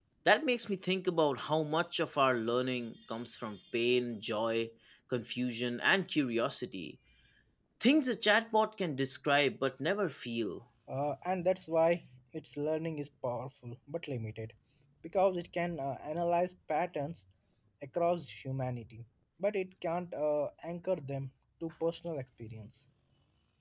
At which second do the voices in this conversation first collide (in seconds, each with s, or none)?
none